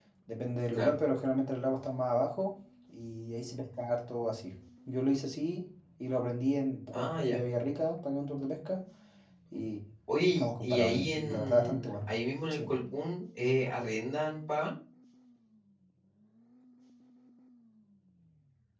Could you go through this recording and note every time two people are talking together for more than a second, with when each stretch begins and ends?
10.3-11.9

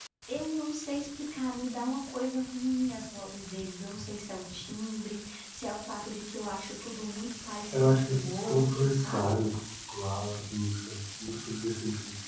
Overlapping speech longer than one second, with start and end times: 7.7-9.3

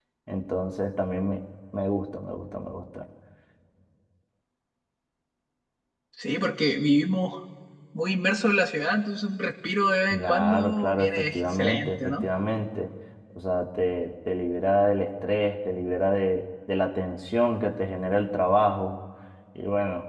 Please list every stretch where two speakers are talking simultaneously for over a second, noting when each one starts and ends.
10.1-12.2

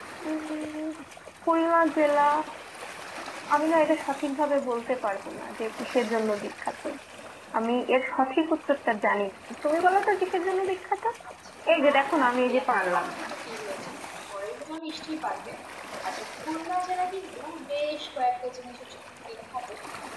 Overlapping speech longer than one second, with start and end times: 11.8-13.1

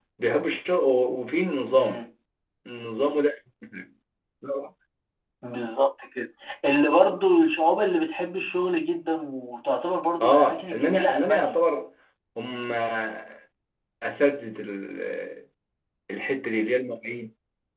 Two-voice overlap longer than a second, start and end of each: 10.2-11.6

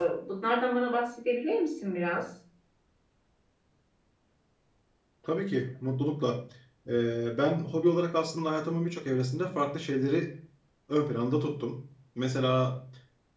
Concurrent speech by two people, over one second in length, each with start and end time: none

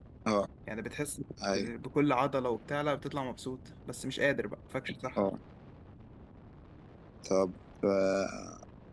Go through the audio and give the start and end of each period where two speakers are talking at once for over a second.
none

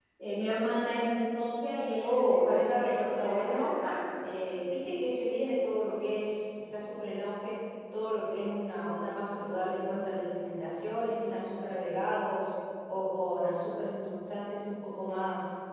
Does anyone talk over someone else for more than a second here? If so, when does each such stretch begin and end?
2.0-3.7

